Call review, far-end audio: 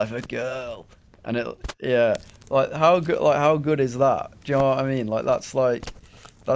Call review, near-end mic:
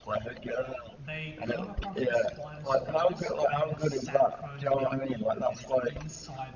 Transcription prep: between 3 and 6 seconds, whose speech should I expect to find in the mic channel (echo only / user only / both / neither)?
both